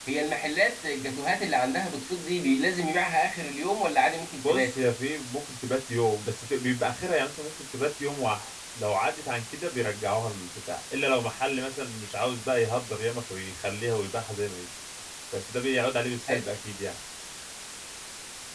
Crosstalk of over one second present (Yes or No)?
No